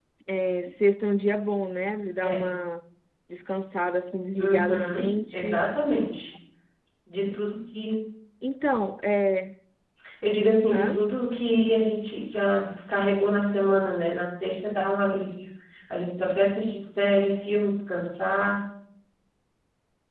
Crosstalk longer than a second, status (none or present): present